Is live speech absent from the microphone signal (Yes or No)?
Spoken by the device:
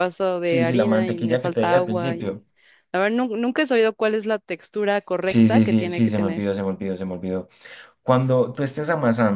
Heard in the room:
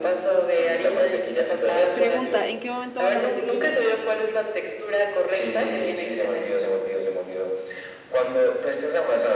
No